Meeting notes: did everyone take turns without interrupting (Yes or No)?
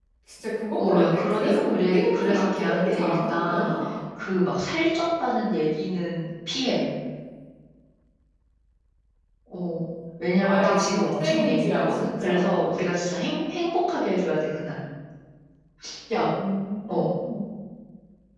No